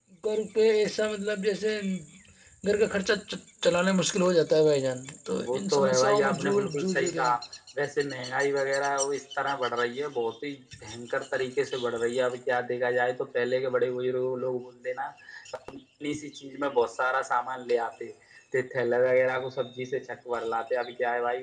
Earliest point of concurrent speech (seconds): 6 s

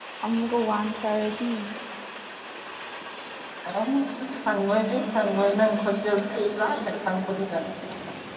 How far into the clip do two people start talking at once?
none

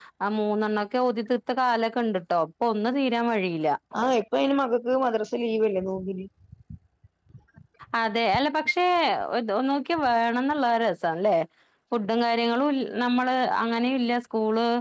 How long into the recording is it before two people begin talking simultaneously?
none

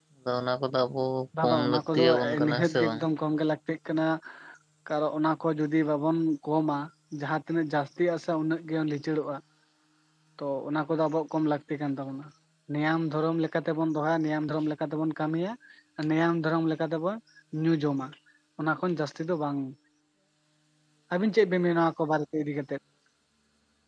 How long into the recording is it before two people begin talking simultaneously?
1 s

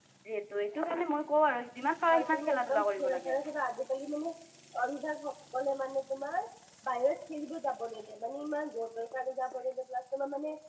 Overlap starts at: 2 s

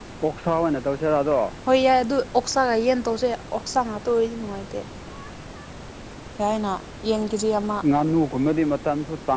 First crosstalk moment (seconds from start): none

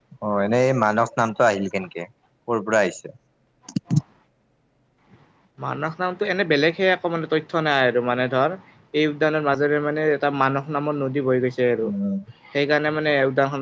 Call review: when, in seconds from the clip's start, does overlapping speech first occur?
none

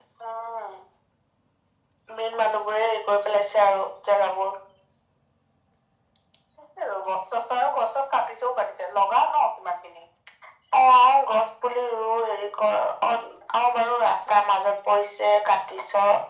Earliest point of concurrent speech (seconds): none

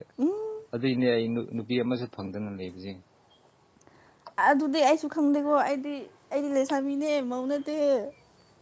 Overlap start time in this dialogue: none

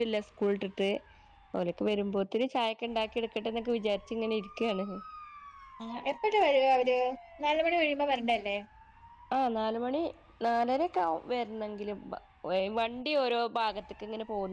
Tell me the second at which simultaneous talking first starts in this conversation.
none

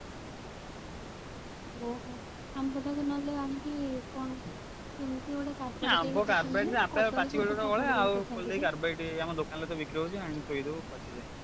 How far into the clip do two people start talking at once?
6 s

